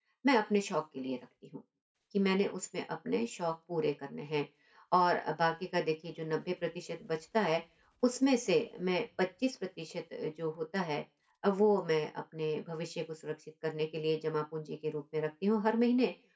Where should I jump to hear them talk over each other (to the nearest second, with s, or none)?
none